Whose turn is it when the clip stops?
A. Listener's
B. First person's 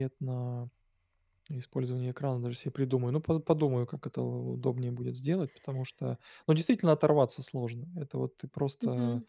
B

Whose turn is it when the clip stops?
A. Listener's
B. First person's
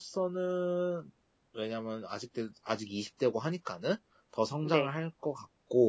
B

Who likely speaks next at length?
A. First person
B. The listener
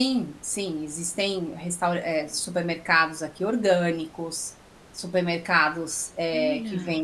A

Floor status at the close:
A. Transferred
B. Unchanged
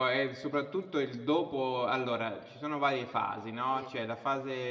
B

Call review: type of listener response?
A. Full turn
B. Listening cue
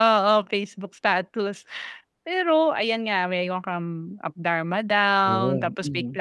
B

